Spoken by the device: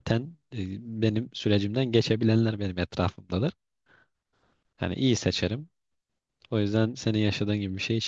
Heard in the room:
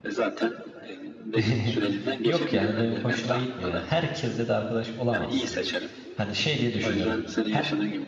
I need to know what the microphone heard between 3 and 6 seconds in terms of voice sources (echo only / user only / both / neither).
both